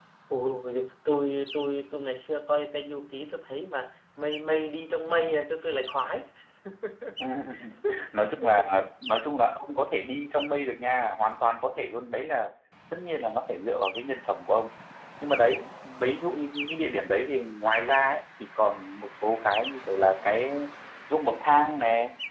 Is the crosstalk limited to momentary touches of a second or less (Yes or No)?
Yes